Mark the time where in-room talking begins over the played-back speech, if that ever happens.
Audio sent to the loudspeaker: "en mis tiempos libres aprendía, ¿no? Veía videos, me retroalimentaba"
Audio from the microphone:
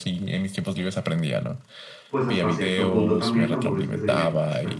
2 s

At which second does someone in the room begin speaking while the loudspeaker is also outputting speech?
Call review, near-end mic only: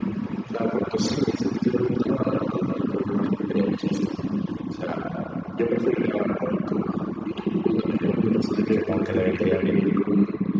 9 s

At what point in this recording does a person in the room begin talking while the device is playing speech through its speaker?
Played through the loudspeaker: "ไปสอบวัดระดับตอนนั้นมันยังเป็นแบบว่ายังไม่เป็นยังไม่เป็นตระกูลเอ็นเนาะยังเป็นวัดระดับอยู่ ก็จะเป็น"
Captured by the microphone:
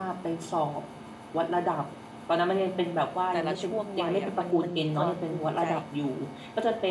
3 s

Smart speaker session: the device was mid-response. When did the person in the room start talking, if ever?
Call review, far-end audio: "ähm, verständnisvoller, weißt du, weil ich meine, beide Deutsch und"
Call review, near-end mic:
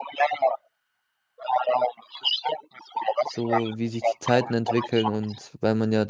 3 s

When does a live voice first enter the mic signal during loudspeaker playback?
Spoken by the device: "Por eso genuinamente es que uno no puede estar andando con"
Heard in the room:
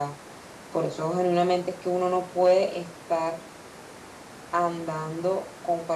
none

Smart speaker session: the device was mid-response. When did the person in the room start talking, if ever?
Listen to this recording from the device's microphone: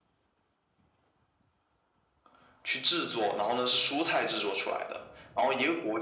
none

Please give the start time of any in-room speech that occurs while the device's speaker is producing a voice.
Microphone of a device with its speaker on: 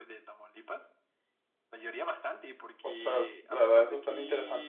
3 s

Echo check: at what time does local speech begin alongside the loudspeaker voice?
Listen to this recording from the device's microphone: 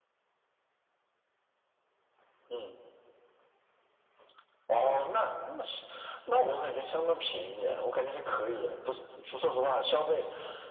none

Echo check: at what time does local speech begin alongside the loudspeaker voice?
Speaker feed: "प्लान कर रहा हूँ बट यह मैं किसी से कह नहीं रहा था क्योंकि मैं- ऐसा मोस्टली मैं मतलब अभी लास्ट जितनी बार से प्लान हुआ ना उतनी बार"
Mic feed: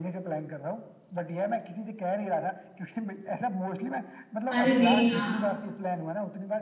5 s

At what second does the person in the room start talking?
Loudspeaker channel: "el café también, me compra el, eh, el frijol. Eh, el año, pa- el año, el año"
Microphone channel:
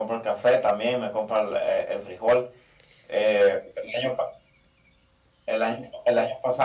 none

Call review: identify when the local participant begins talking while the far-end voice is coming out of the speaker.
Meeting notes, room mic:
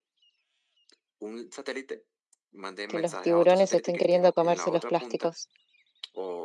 3 s

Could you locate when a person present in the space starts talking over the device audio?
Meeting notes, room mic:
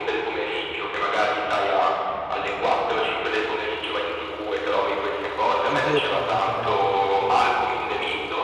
6 s

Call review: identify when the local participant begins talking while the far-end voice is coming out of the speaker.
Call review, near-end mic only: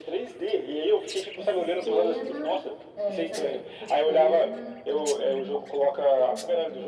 1 s

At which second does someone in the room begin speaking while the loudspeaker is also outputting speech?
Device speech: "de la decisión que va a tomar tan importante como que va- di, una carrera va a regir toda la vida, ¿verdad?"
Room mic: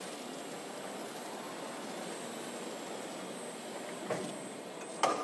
none

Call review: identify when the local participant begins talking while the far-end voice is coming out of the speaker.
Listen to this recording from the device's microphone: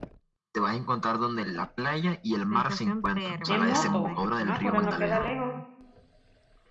3 s

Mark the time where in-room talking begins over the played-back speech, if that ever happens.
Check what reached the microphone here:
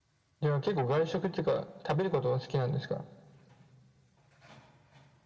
none

